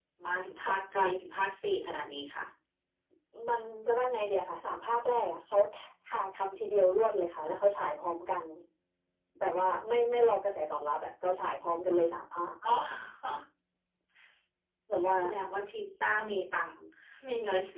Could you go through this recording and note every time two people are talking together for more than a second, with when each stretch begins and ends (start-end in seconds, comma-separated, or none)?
none